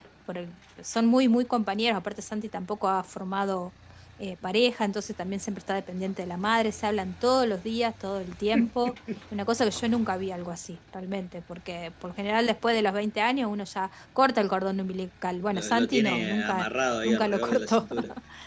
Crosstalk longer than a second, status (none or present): present